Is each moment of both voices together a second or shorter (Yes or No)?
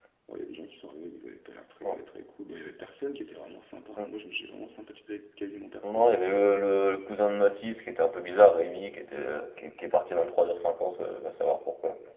Yes